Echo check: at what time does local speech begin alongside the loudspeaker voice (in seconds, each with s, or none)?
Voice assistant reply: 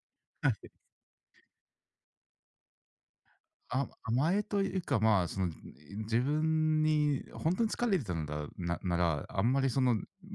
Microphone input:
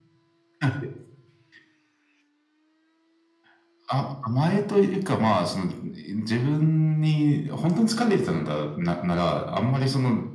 none